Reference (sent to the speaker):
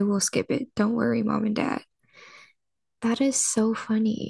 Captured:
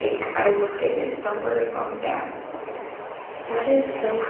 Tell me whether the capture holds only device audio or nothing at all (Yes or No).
Yes